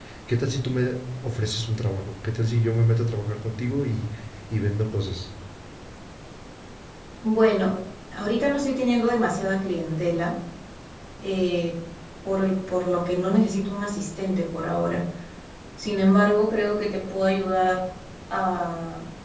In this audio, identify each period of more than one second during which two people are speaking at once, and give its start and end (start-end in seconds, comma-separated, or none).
none